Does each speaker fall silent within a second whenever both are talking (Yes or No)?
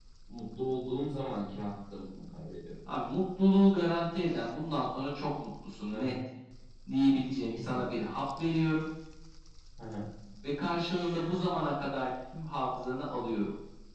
Yes